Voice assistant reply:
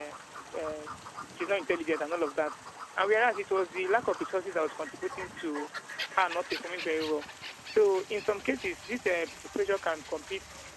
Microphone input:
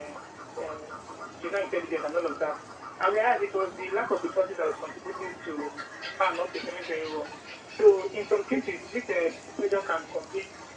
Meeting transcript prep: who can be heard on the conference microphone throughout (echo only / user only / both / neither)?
echo only